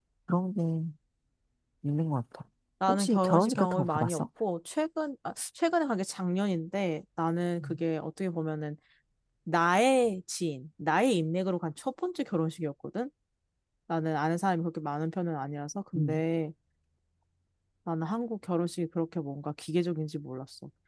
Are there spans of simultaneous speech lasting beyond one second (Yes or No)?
Yes